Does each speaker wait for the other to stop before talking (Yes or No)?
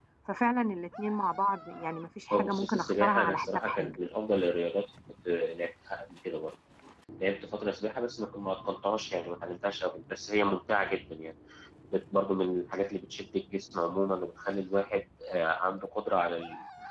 No